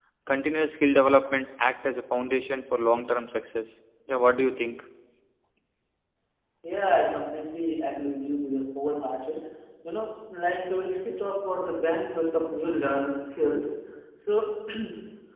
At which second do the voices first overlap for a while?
none

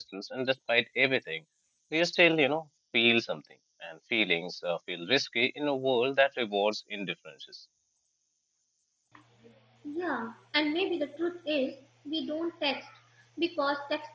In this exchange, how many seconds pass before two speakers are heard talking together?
none

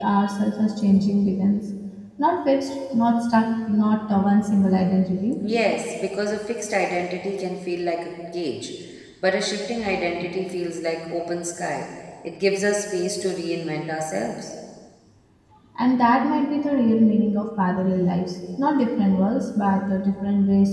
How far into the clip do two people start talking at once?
none

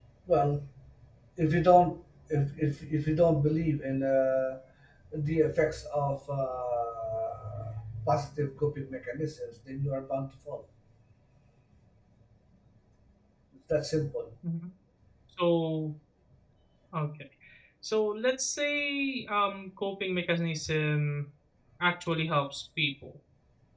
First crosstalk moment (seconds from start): none

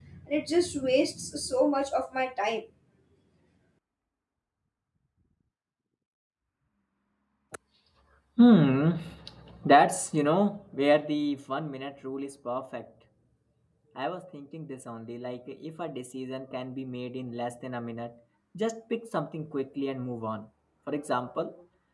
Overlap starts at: none

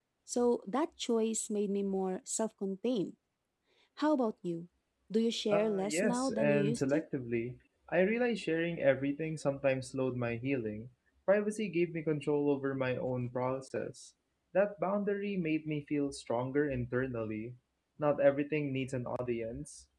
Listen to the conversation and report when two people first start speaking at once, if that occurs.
5 s

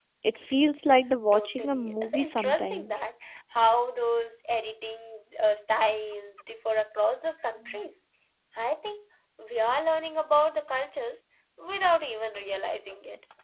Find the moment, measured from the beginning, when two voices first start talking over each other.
1 s

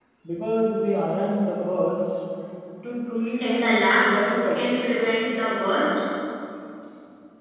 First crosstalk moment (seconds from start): 3 s

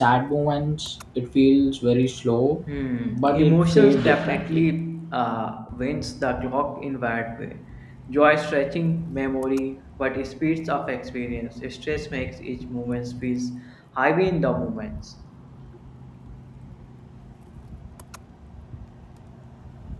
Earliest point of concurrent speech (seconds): 3 s

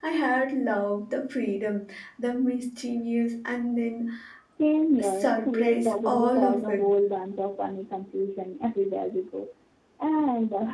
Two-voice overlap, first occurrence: 5 s

